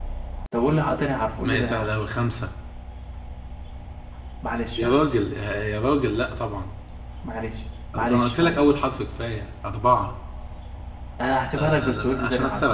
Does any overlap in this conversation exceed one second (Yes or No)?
Yes